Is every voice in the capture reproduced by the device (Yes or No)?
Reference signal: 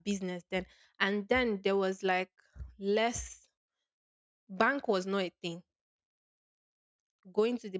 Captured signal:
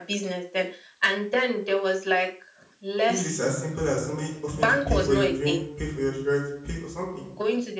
No